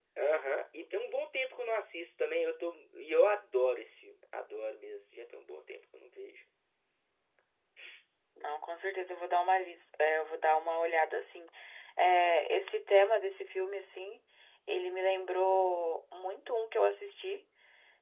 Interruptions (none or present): none